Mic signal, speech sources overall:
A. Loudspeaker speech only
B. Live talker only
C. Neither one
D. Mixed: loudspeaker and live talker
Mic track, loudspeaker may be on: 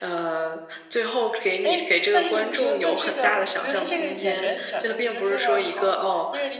D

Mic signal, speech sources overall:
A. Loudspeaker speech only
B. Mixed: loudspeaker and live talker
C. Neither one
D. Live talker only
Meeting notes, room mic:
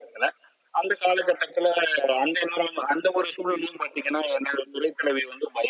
A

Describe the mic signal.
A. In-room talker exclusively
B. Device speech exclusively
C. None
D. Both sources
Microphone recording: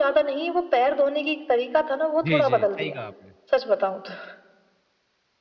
D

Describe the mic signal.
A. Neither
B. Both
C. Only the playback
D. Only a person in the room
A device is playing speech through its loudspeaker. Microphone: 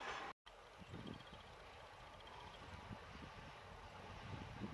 A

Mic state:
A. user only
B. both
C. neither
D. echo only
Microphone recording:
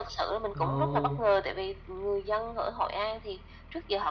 B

